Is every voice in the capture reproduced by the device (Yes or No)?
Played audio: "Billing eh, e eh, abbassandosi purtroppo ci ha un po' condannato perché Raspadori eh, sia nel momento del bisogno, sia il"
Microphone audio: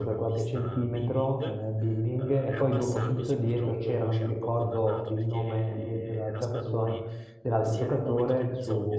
No